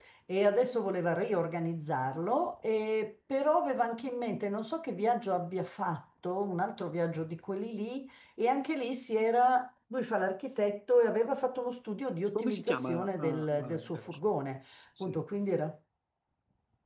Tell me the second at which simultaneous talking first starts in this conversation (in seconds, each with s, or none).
12.3 s